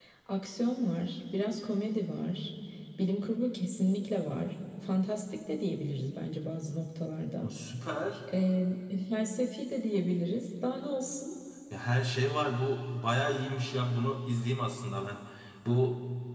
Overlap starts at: none

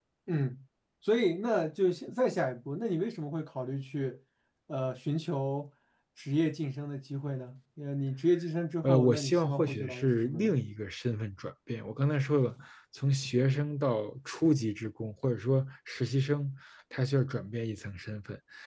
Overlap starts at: 8.8 s

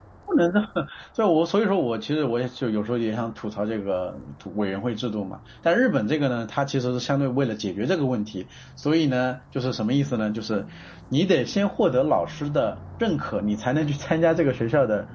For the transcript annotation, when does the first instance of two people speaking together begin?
none

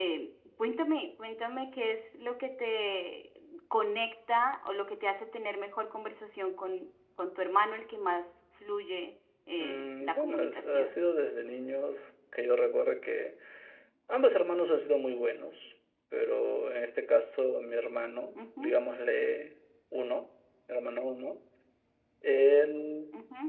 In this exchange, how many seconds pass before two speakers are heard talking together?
9.6 s

